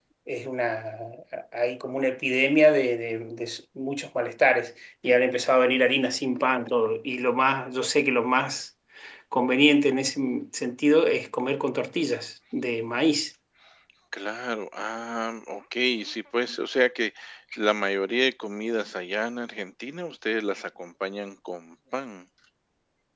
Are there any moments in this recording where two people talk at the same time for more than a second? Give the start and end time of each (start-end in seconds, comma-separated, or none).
none